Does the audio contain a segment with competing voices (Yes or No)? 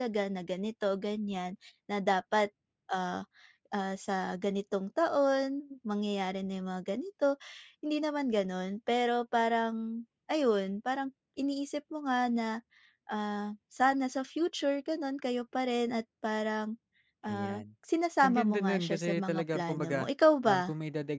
Yes